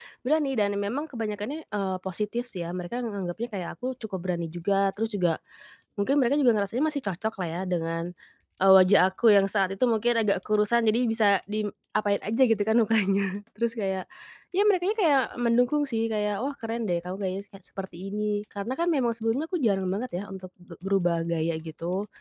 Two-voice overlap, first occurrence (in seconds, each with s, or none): none